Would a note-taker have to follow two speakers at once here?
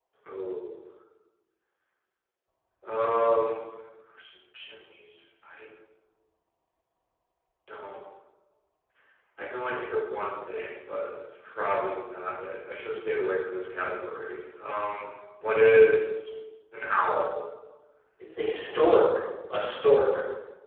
No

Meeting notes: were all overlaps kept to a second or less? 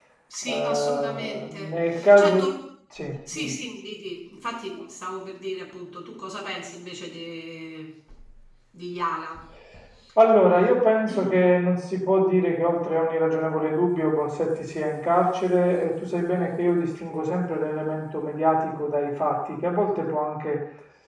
No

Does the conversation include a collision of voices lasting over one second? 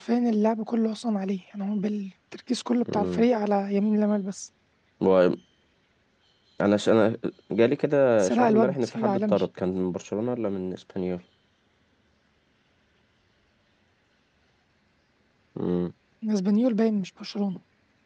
Yes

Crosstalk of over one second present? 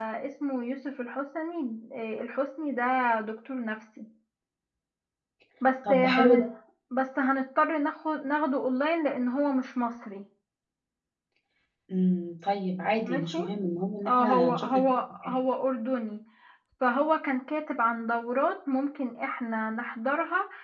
Yes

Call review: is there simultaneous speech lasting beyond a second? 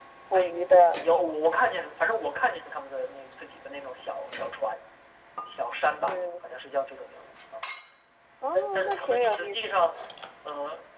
Yes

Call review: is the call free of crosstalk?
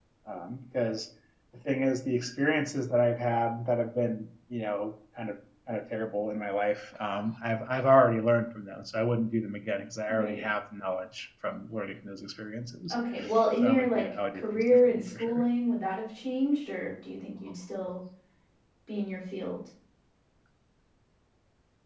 No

